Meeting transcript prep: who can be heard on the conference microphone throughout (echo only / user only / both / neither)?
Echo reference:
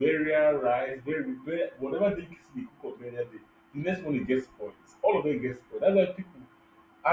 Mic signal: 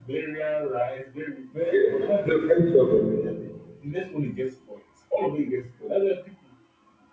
both